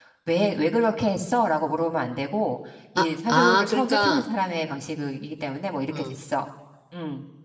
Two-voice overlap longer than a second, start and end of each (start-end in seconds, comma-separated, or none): 3.0-4.2